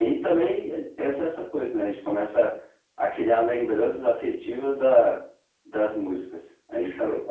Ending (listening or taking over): taking over